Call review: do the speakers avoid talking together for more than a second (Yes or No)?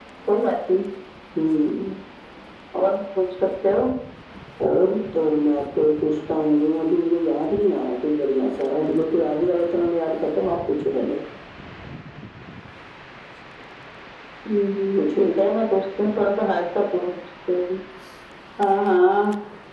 Yes